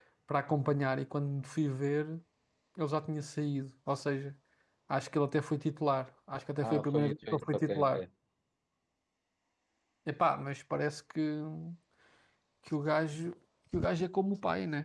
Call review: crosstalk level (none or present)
present